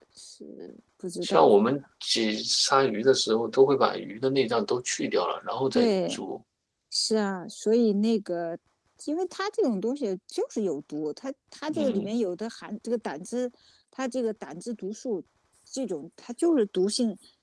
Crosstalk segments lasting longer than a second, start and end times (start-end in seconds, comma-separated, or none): none